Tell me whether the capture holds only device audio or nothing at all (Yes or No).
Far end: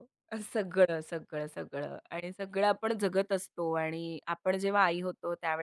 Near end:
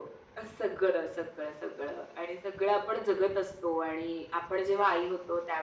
Yes